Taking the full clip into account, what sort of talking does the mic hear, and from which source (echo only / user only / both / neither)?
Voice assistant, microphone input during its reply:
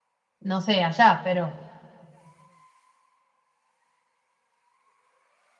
user only